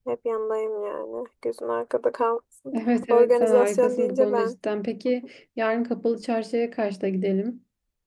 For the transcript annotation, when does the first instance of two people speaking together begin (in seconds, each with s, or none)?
3.1 s